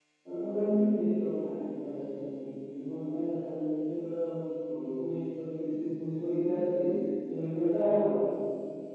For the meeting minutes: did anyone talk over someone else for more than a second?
No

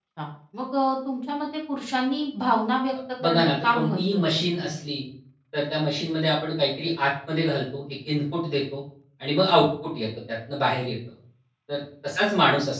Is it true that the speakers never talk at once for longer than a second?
No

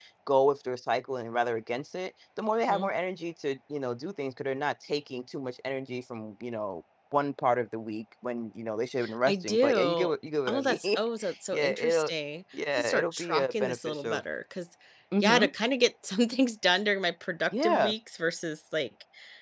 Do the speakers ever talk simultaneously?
Yes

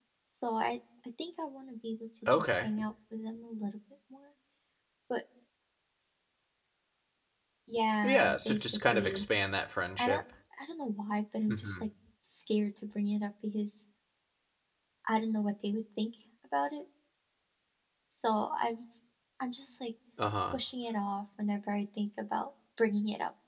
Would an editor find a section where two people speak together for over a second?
Yes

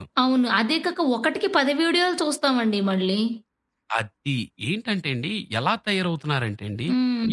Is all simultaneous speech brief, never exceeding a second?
Yes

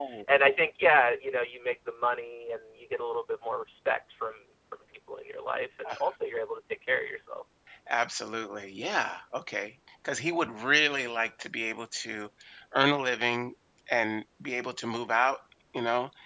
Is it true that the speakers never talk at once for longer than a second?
Yes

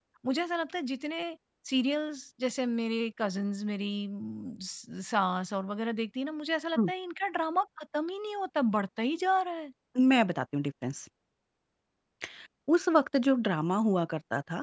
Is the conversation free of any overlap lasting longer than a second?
Yes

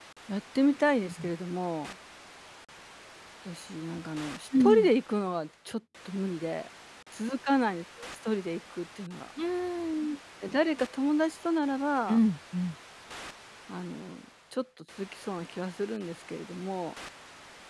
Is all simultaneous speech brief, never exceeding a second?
Yes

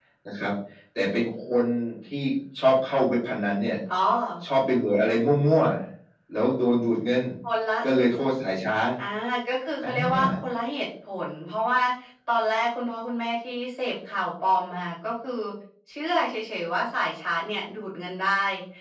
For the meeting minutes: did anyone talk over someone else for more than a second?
No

